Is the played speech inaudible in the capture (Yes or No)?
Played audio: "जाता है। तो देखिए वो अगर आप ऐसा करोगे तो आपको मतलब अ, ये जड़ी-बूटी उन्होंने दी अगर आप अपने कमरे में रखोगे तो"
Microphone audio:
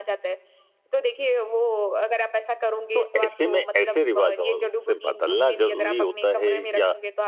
No